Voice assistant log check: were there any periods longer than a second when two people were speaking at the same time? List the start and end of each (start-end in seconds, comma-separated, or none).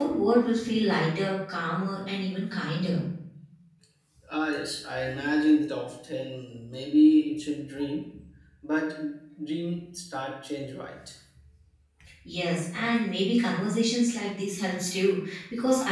none